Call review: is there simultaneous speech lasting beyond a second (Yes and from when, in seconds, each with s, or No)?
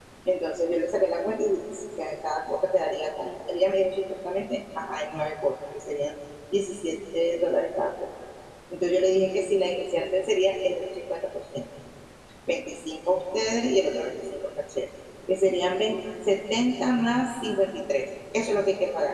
No